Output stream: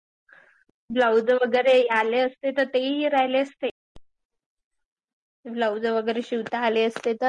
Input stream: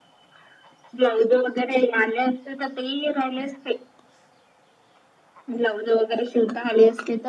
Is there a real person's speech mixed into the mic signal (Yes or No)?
No